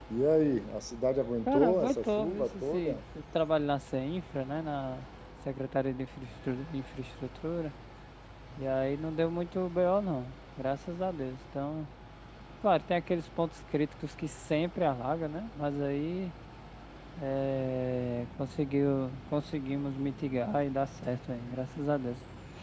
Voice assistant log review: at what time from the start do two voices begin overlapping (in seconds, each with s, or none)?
1.5 s